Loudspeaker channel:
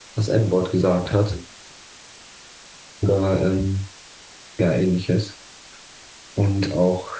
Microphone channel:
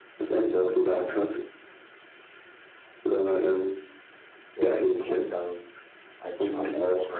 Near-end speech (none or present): present